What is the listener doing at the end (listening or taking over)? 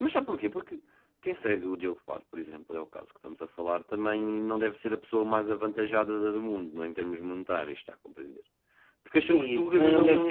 taking over